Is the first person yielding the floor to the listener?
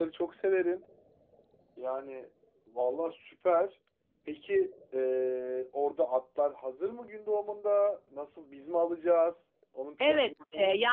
Yes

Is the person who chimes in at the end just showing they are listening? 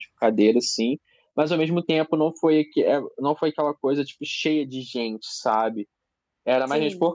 Yes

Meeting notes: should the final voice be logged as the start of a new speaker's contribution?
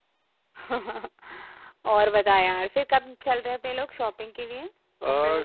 Yes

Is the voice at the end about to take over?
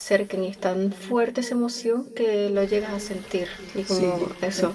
Yes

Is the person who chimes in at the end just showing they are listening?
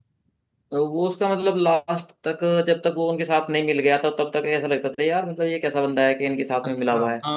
No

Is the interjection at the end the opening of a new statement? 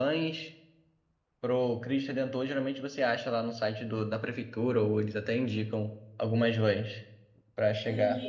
Yes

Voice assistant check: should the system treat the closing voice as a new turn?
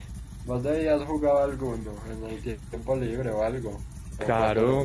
Yes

